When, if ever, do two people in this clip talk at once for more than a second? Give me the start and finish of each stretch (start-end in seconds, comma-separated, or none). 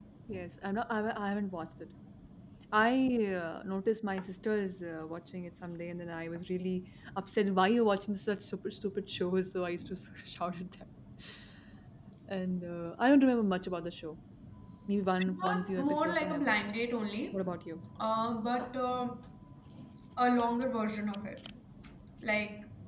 15.2-16.6